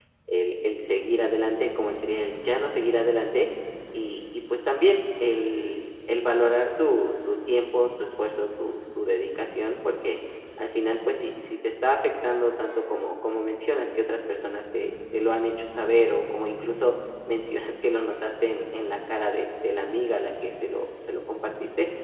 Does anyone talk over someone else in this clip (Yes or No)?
No